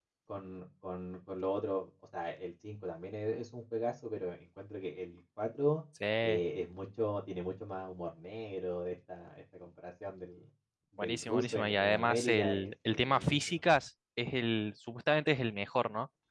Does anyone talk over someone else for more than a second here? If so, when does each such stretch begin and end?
11.0-13.6

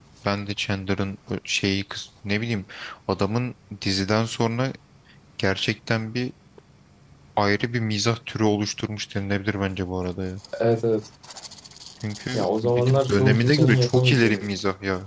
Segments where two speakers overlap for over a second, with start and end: 12.3-14.4

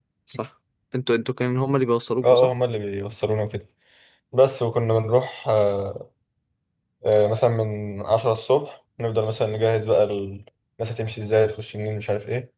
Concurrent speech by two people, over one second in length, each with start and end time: none

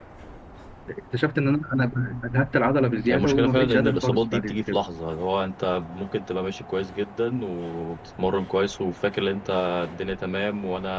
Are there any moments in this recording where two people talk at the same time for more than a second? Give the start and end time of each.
3.1-4.8

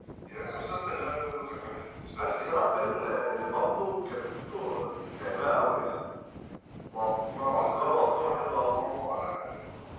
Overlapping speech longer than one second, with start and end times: 7.5-8.9

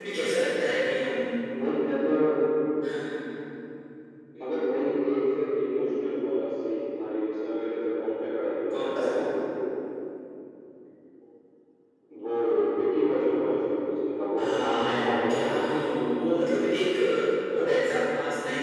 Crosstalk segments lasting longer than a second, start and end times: 14.4-15.8

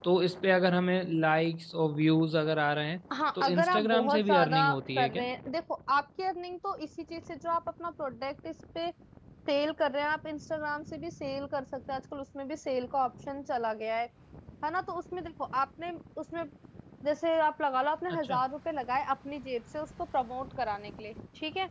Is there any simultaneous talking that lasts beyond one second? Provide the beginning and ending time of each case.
3.4-5.2

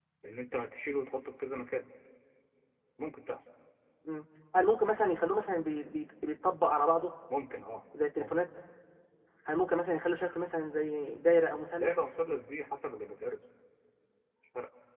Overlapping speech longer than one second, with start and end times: none

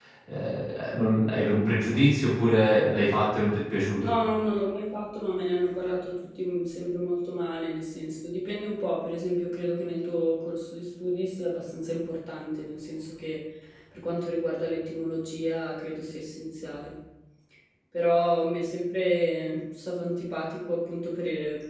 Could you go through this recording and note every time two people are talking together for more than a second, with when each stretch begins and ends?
none

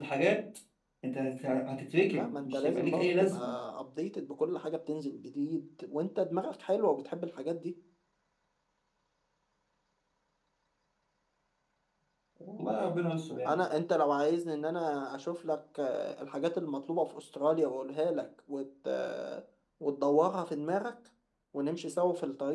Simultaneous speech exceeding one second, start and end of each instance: 2.1-3.4

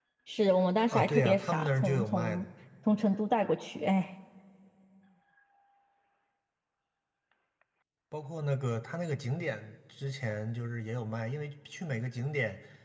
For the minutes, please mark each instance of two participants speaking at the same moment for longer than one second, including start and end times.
0.9-2.5

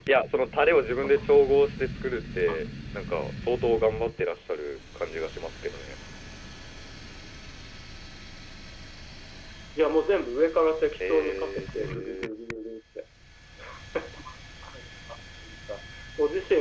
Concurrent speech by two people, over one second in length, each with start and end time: 11.1-12.3

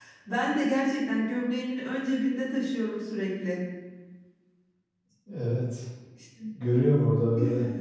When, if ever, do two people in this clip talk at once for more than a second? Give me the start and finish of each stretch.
none

